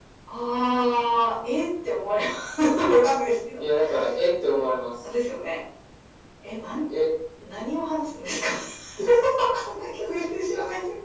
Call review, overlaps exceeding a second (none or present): none